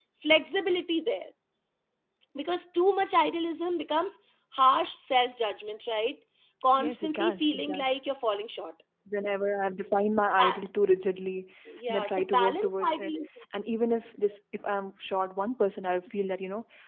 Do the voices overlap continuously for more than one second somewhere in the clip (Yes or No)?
Yes